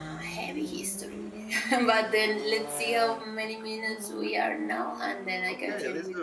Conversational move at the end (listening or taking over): taking over